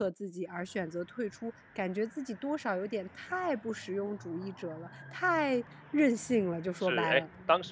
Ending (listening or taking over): taking over